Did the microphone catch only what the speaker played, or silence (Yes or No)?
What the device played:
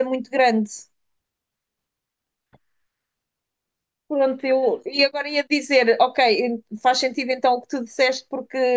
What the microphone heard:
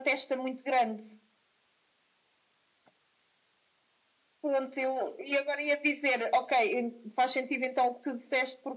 Yes